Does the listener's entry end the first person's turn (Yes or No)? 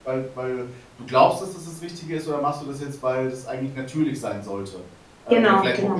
No